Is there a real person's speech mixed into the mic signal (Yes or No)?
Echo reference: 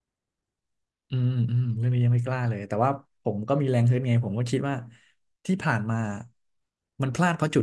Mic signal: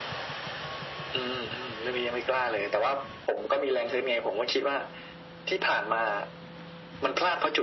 No